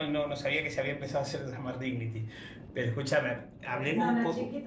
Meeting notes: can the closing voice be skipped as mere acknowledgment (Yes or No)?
No